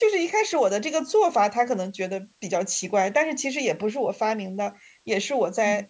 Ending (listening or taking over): listening